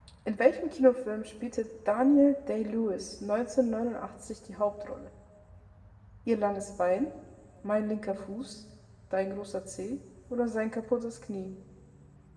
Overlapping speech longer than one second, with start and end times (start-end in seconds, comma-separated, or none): none